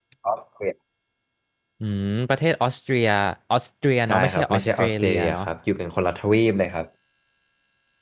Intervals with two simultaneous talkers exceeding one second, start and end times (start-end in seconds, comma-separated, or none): 4.1-5.4